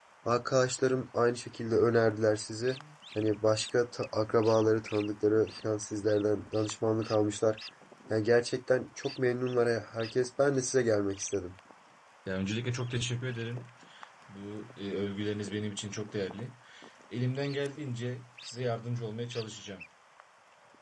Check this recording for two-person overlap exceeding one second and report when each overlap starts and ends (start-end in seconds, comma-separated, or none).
none